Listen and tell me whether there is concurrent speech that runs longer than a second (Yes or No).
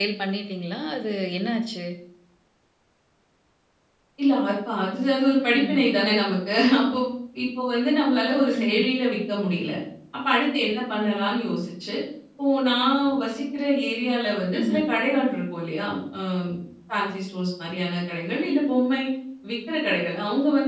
No